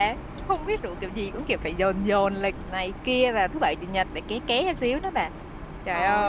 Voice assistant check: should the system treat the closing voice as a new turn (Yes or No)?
Yes